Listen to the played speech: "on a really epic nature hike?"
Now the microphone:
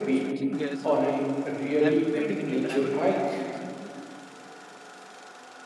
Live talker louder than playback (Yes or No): No